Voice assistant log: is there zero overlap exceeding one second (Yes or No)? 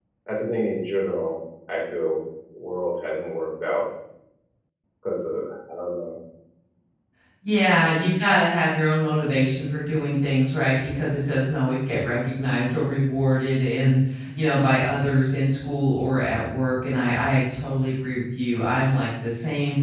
Yes